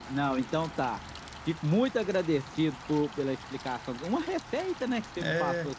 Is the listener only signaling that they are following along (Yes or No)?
No